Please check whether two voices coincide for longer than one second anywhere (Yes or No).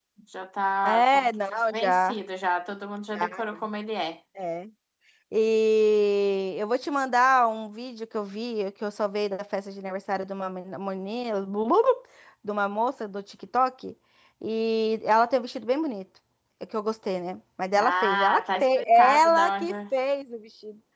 Yes